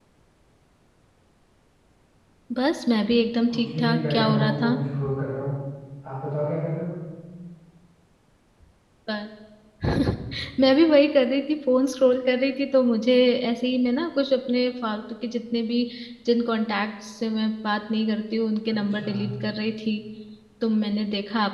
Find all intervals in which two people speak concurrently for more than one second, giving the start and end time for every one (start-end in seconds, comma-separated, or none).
3.5-4.8